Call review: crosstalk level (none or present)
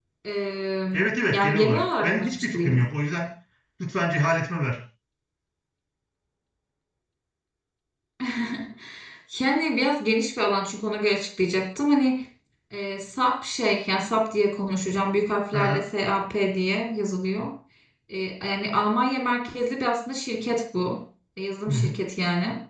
present